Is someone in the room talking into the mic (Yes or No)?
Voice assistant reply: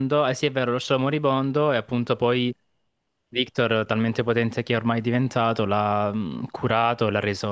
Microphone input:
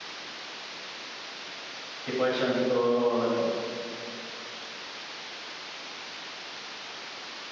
Yes